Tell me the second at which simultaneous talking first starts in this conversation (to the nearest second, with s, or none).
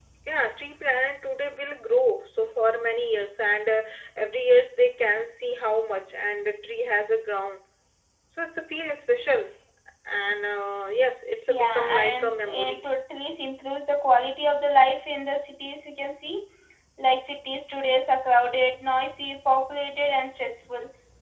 11 s